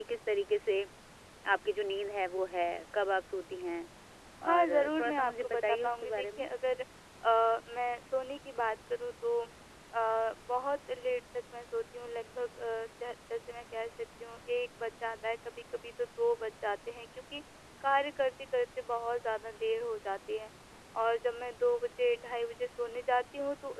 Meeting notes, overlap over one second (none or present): present